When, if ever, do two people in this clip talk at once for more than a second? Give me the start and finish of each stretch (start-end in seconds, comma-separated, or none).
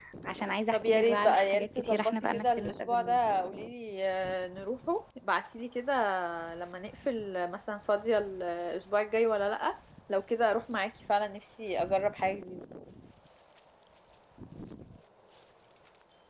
0.7-3.3